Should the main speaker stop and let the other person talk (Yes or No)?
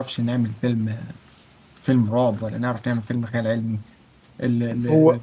Yes